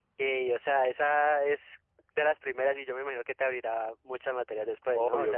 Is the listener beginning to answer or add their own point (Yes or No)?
Yes